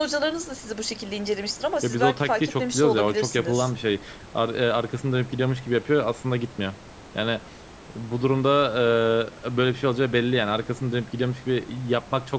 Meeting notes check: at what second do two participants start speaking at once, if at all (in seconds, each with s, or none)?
1.8 s